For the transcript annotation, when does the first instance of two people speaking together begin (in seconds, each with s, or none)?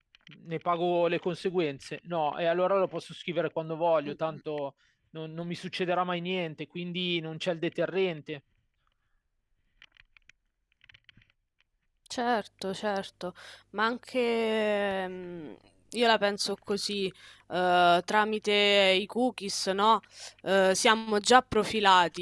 none